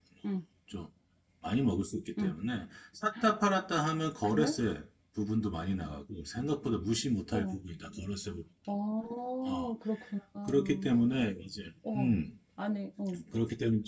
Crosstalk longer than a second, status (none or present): none